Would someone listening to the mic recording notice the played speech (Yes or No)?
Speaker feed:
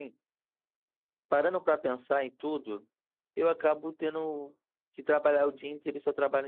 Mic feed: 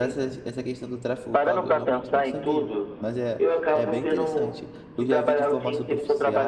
Yes